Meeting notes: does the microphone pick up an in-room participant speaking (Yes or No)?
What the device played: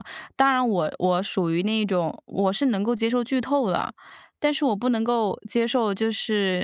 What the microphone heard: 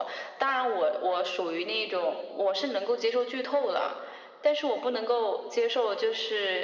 No